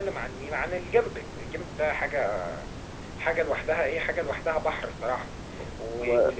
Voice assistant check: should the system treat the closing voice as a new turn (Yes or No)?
No